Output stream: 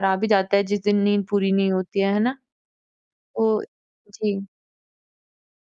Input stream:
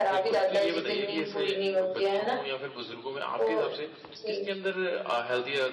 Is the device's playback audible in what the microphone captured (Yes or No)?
Yes